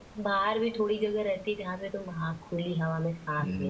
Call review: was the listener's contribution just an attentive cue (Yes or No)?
No